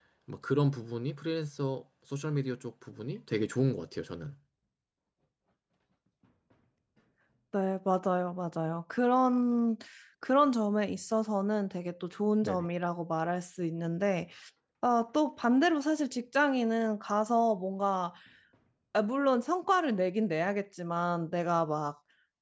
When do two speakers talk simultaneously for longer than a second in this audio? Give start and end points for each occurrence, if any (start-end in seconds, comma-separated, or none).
none